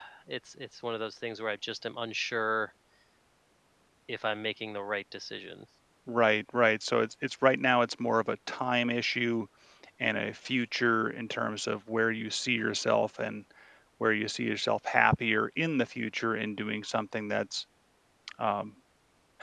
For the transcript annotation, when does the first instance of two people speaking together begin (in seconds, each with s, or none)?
none